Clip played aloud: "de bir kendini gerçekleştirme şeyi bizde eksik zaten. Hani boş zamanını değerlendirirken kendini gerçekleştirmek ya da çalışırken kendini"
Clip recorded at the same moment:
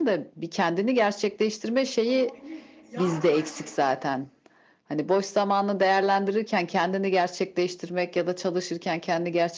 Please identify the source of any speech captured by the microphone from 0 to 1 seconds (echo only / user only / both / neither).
echo only